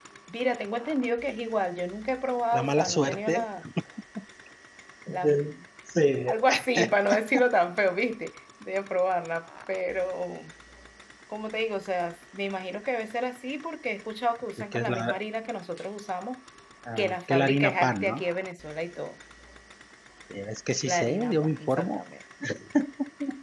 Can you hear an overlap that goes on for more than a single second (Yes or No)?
Yes